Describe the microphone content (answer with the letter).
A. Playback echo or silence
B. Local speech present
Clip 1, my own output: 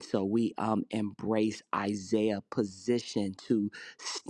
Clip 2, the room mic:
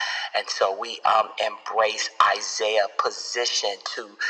A